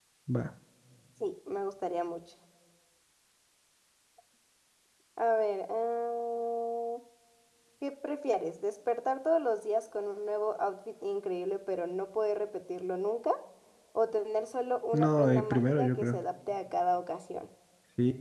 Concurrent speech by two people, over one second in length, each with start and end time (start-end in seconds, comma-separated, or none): 14.9-16.2